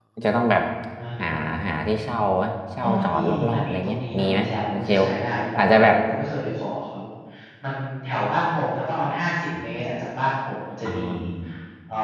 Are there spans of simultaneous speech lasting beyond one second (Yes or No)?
Yes